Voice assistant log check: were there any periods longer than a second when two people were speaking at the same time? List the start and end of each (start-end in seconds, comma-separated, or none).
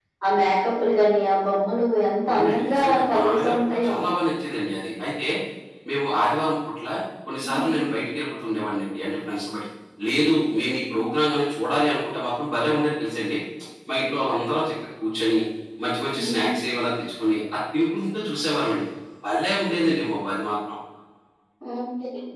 2.3-3.9